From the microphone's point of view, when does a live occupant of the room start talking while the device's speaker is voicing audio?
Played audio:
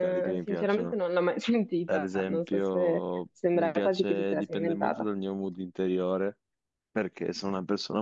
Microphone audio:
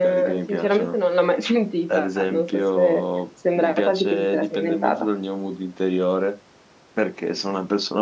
none

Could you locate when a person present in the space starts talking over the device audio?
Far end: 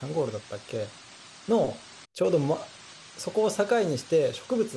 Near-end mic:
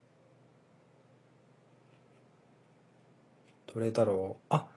3.7 s

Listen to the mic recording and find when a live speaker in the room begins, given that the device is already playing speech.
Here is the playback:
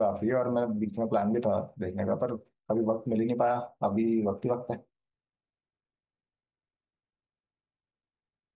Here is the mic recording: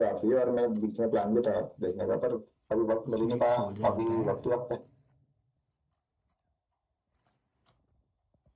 3.1 s

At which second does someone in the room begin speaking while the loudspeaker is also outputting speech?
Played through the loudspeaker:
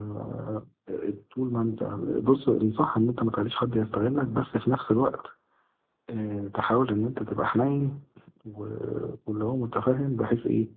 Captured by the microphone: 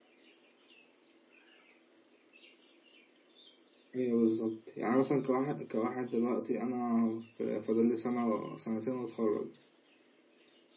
3.9 s

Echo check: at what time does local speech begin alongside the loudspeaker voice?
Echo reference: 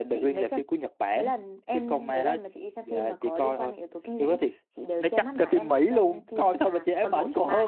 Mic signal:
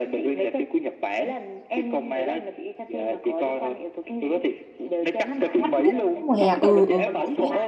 5.6 s

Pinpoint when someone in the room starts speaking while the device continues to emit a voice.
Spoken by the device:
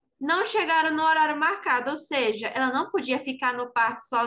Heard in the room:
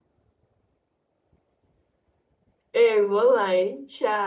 2.7 s

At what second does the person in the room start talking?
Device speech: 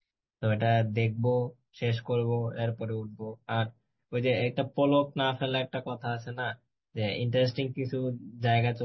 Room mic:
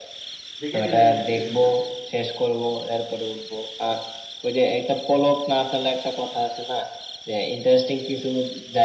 0.6 s

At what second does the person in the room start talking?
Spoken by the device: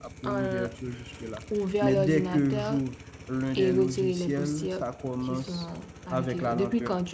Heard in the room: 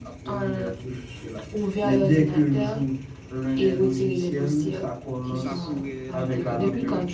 4.6 s

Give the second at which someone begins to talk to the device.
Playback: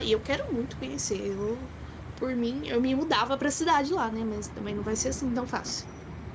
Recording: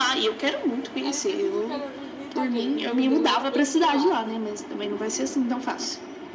1.1 s

